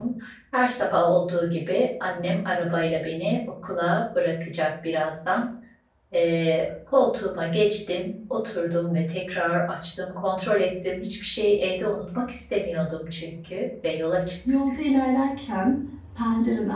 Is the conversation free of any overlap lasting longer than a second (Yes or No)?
Yes